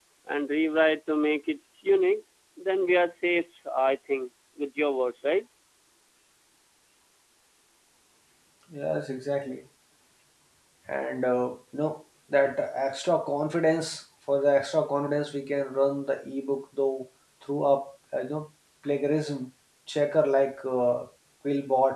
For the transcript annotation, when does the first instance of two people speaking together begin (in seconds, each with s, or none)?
none